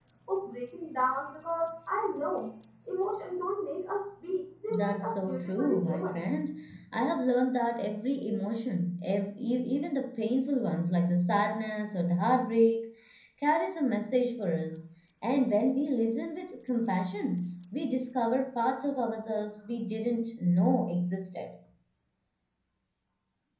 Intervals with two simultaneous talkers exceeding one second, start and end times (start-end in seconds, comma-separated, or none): 4.7-6.2